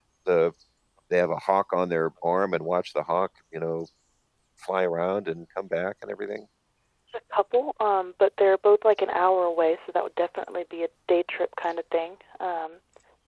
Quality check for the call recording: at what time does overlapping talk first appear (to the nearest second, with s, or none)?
none